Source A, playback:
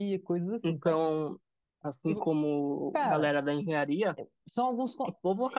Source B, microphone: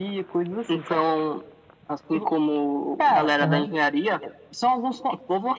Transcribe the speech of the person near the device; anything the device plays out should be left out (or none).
Aham.